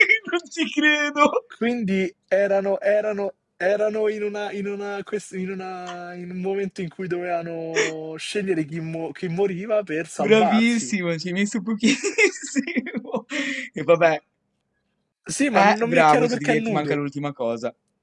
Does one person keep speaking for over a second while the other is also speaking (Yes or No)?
Yes